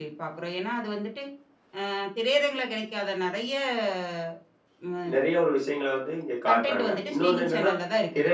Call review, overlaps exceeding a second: present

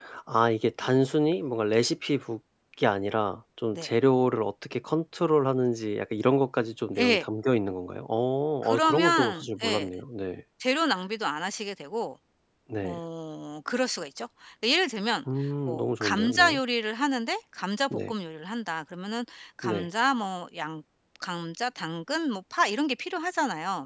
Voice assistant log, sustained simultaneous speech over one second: present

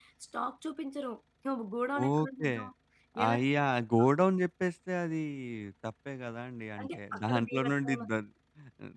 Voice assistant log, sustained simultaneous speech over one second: present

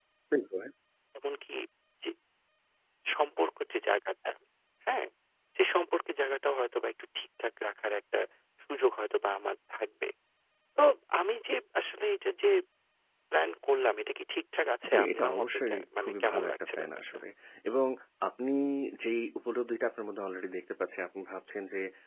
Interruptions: present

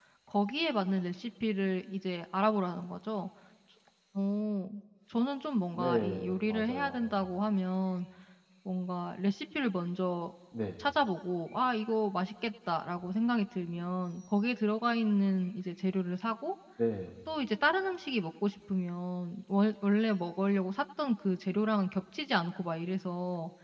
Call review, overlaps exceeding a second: present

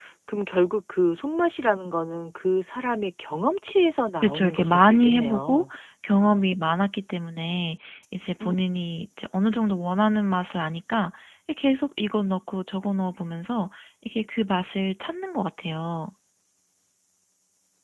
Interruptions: present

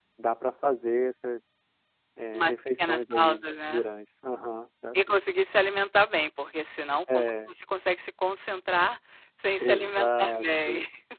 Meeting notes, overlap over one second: present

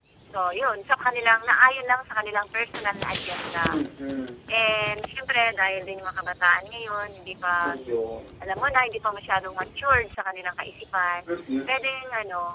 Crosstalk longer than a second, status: none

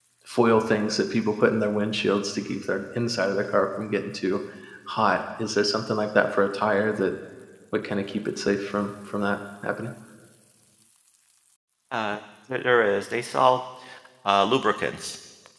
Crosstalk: none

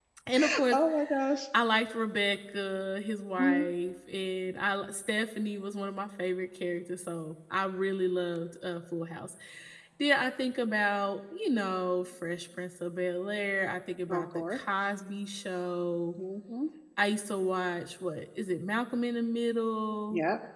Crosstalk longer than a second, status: none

